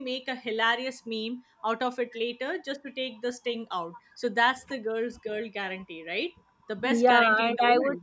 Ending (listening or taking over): taking over